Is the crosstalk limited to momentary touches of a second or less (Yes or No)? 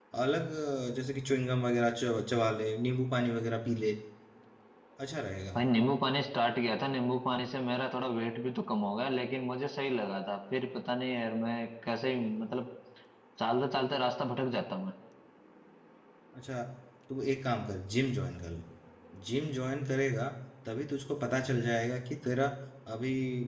Yes